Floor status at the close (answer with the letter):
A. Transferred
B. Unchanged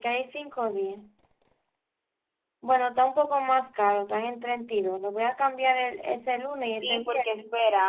A